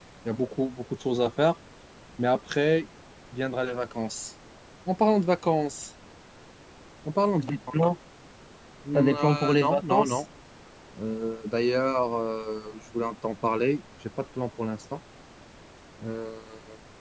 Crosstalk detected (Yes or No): Yes